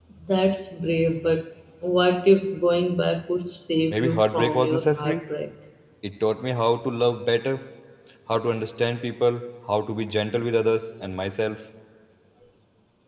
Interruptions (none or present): present